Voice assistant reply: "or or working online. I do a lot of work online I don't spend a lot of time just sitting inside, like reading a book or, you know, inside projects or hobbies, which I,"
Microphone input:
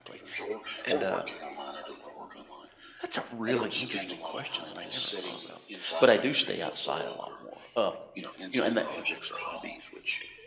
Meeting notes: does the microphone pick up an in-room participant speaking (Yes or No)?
Yes